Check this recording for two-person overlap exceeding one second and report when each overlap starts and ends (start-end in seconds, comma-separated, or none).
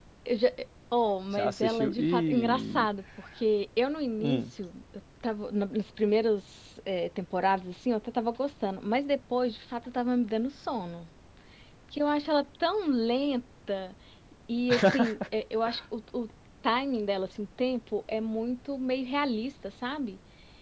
1.3-2.9